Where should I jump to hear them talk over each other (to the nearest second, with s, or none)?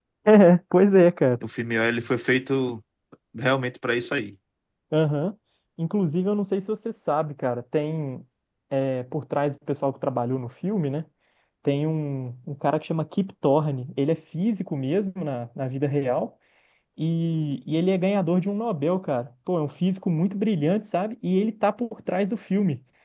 none